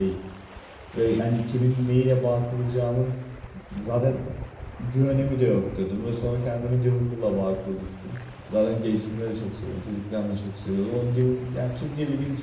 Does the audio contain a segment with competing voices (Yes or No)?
No